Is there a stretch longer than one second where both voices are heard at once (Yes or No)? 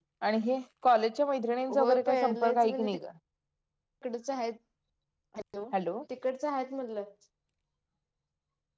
Yes